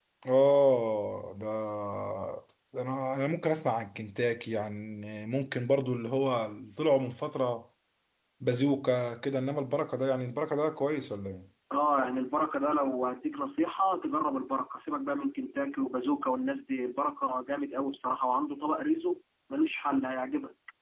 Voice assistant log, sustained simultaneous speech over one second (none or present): none